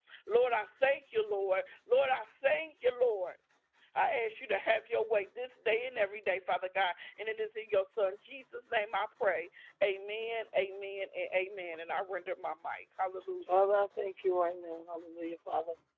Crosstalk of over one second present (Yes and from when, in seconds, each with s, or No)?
No